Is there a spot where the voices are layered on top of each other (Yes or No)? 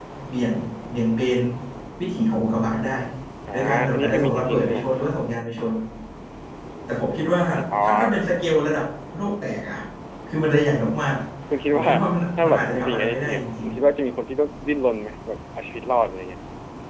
Yes